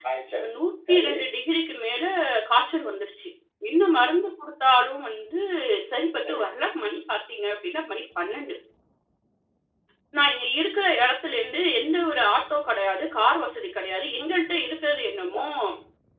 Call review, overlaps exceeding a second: none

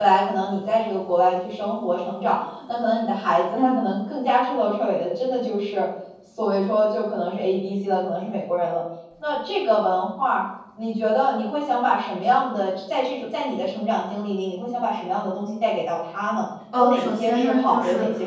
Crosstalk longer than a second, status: present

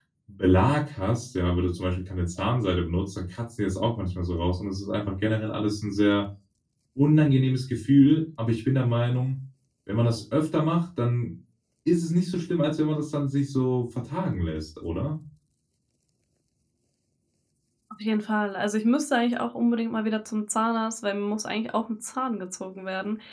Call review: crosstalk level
none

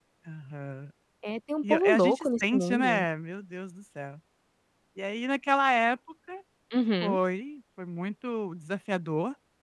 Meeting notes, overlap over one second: present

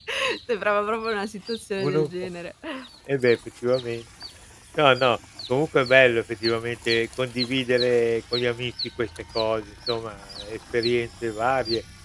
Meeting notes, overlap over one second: none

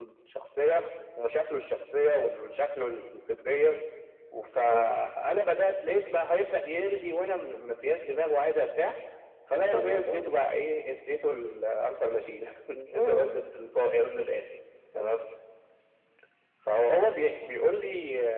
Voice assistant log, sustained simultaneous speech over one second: none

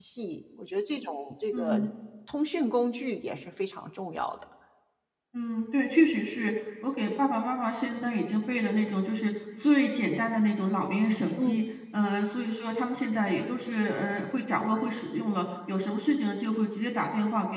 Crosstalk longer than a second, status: none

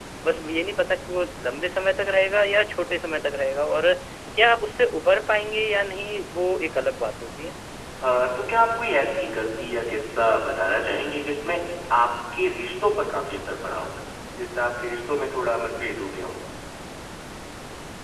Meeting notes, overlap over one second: none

